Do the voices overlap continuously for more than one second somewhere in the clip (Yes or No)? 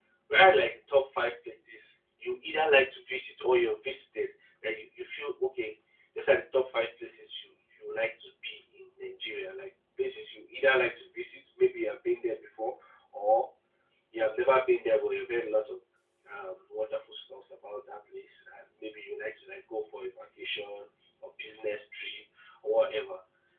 No